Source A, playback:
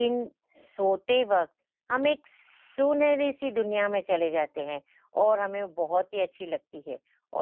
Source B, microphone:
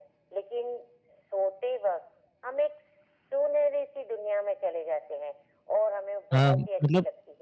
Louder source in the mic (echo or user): user